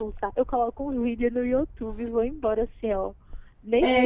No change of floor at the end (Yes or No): No